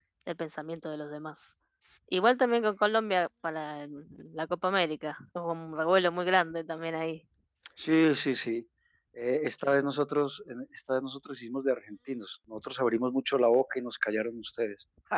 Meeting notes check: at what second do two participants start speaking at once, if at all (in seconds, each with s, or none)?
none